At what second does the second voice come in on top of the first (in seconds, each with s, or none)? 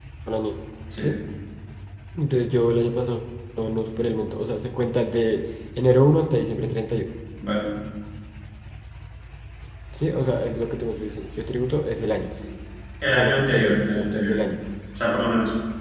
13.1 s